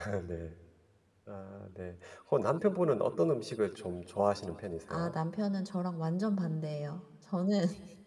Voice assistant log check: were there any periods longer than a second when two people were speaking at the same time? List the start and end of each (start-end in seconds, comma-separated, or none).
none